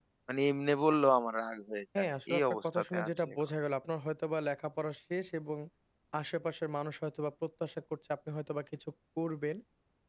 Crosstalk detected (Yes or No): Yes